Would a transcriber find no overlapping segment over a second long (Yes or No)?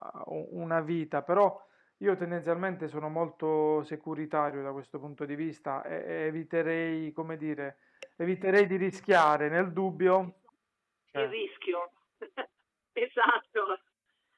Yes